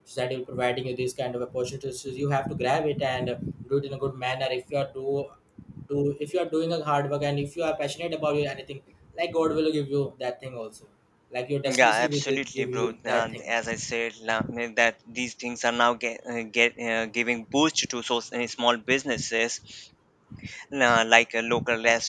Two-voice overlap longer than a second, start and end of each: 11.6-13.5

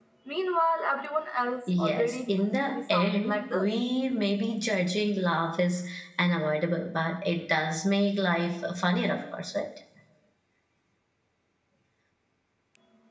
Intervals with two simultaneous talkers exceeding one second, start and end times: 1.8-3.7

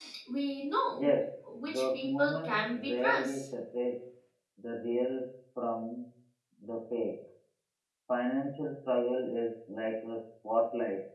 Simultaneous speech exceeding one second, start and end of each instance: 1.6-3.4

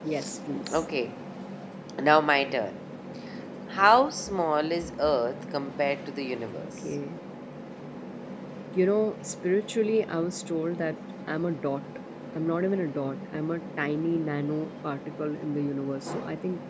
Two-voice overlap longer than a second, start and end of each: none

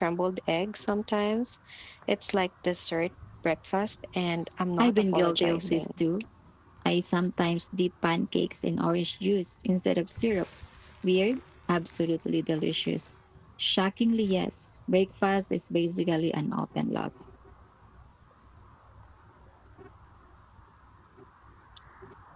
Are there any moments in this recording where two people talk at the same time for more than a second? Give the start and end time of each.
4.8-6.0

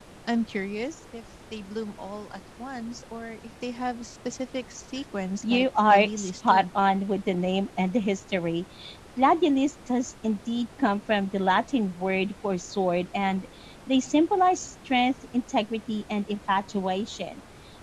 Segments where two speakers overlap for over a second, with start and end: 5.4-6.7

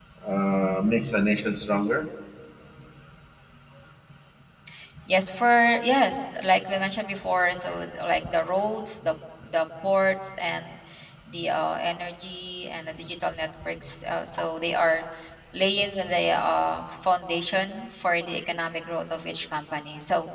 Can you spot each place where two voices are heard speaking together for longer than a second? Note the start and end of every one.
none

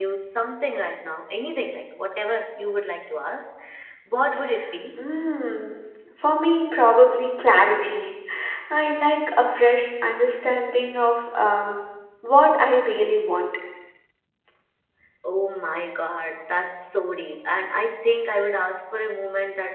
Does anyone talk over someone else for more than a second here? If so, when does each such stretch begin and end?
none

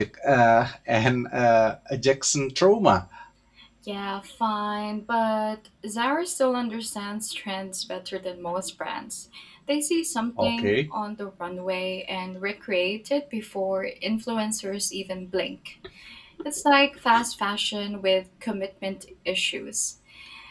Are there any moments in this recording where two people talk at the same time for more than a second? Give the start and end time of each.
none

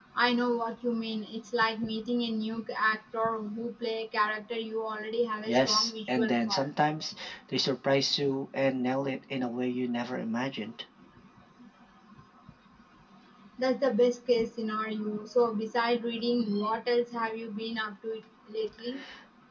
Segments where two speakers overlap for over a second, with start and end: 5.4-6.7

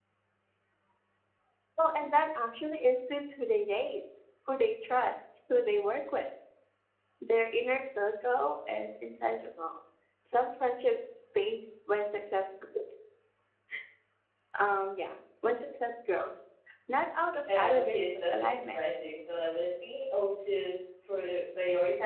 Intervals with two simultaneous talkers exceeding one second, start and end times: 17.6-18.8

